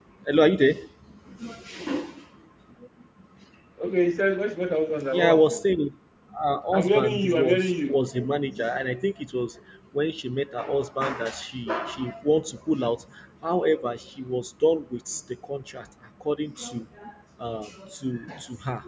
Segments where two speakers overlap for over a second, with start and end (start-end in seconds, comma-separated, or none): 6.7-8.0